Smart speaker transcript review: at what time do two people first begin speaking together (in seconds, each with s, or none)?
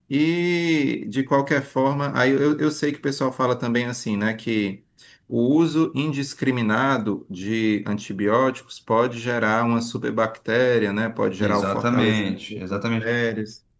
11.4 s